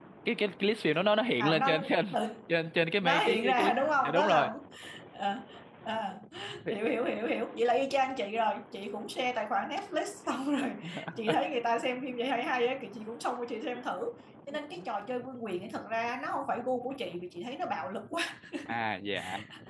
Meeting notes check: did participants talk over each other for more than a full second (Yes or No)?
Yes